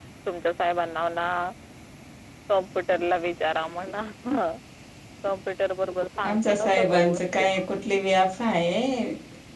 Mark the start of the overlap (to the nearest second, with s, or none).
6 s